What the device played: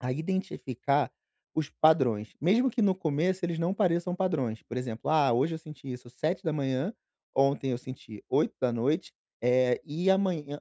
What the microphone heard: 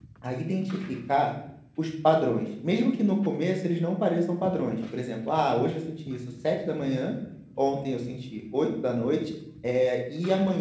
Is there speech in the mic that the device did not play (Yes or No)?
No